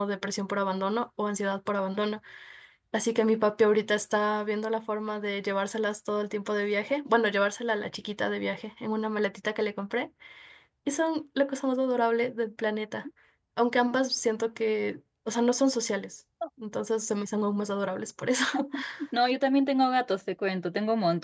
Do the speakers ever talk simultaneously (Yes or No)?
No